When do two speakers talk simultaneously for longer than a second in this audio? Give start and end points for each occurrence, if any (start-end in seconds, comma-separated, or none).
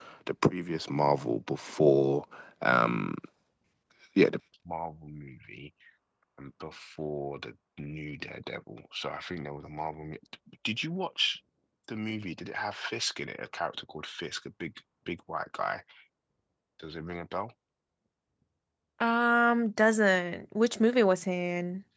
none